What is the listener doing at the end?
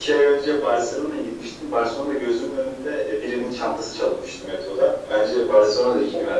taking over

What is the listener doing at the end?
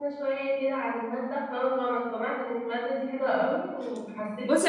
listening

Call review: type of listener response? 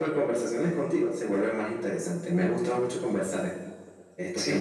taking over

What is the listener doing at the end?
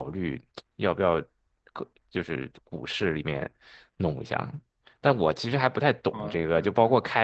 listening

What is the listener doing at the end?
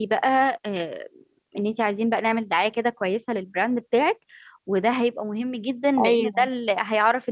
listening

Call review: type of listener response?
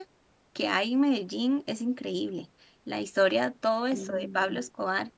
listening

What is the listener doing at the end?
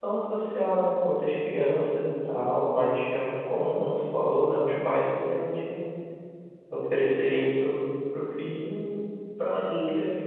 listening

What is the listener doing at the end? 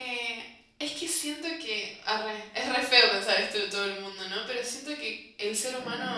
listening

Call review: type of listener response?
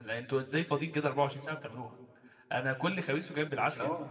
listening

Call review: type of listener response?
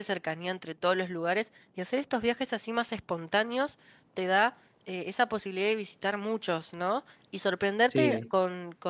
listening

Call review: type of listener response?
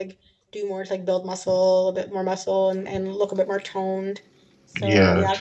listening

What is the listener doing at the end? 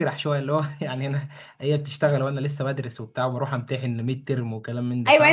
taking over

